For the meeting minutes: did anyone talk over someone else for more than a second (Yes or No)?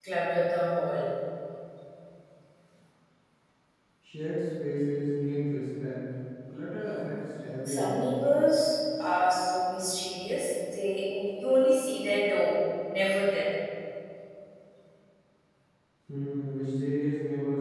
No